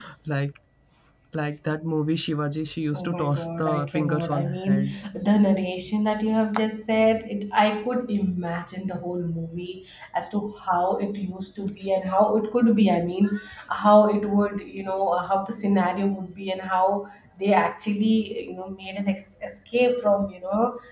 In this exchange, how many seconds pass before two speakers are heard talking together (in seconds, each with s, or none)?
3.0 s